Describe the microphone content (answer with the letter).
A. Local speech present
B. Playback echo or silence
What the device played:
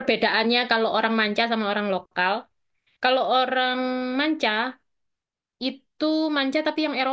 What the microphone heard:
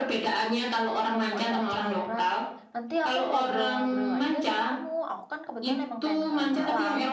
A